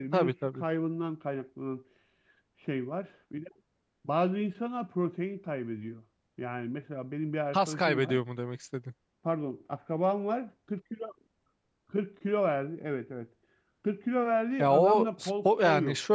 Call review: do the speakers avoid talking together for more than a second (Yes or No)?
No